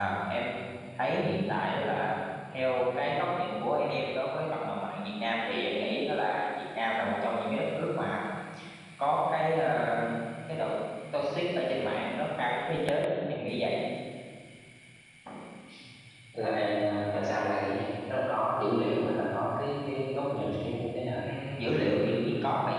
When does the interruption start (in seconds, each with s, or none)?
none